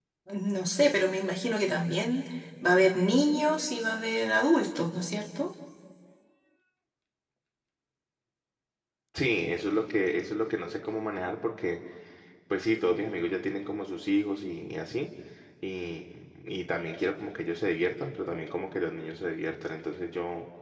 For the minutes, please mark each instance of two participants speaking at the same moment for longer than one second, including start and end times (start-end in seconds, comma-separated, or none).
none